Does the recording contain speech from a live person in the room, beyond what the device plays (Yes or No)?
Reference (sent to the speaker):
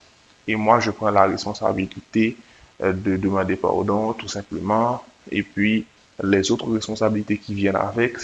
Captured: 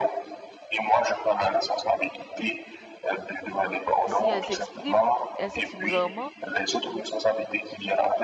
Yes